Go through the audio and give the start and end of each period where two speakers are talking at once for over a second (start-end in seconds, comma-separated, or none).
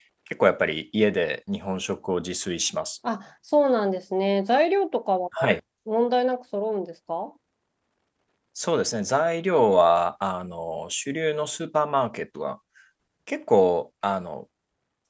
none